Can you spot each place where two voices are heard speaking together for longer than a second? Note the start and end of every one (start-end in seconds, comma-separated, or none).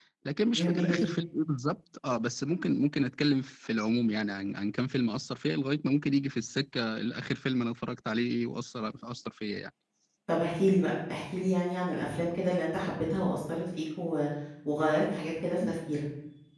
none